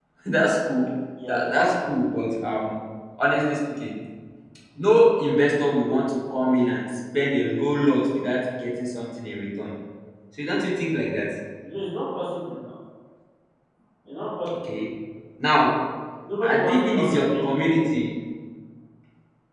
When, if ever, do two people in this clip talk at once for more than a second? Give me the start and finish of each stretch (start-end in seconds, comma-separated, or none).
16.4-17.9